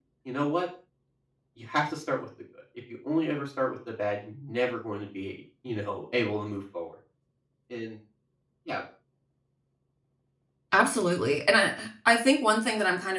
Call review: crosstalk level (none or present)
none